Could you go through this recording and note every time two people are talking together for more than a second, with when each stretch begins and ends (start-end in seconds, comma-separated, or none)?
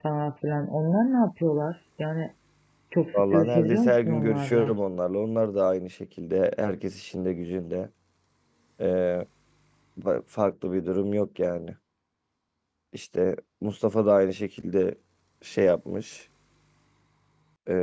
3.1-4.7